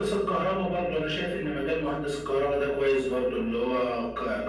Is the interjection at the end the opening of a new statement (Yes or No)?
No